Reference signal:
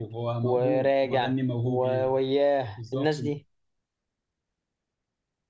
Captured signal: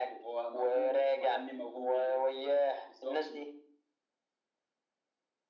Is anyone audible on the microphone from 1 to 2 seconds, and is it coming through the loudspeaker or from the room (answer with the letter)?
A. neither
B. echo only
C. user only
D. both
B